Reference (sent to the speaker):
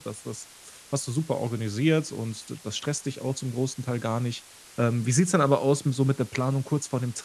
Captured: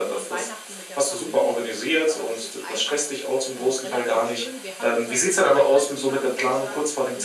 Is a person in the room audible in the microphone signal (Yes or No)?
Yes